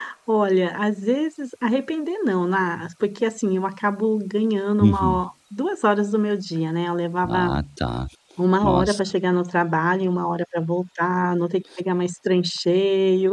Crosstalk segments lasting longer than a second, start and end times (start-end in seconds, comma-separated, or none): none